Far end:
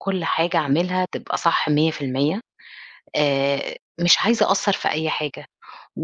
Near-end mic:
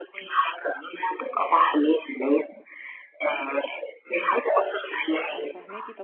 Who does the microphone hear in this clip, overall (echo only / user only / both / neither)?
both